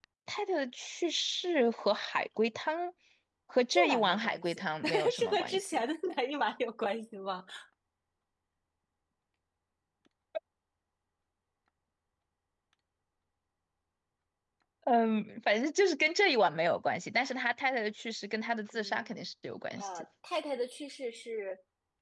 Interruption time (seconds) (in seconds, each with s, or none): 3.6 s